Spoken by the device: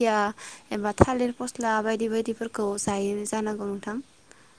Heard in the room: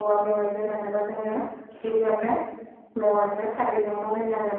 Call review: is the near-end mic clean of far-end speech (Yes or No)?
Yes